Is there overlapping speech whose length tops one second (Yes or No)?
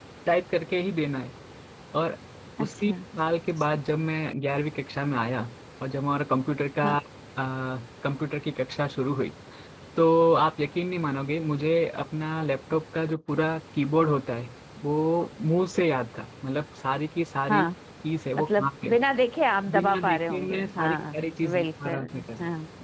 Yes